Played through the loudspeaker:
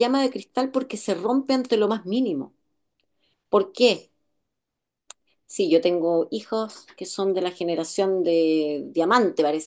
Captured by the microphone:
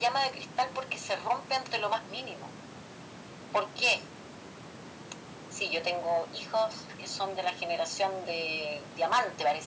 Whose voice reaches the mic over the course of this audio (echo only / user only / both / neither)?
echo only